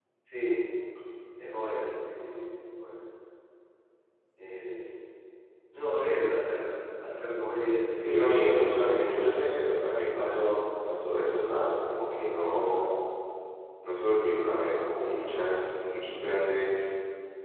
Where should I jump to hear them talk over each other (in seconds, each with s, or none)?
7.9 s